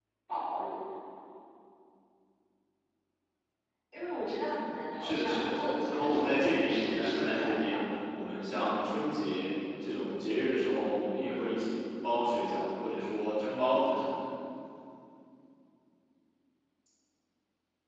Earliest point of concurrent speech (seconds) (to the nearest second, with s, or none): 5 s